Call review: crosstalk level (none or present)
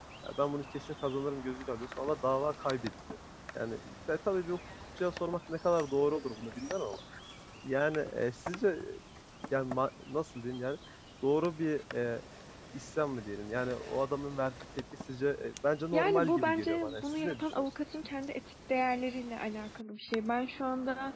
present